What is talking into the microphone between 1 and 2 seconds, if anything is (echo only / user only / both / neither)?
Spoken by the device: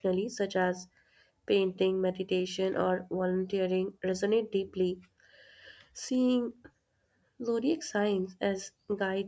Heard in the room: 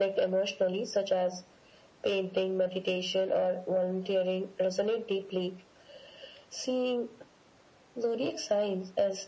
echo only